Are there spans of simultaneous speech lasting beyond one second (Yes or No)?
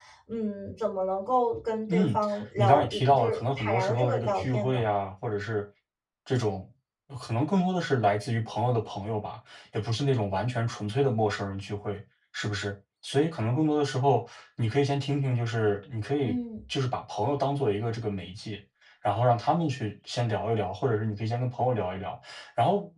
Yes